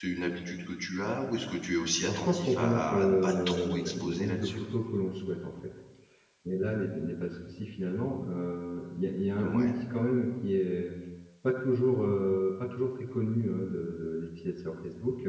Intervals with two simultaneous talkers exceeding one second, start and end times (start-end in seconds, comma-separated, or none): 2.0-4.6